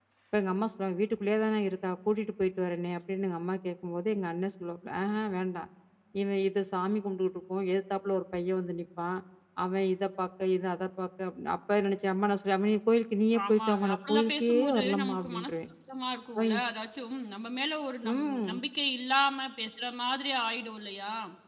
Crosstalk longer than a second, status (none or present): present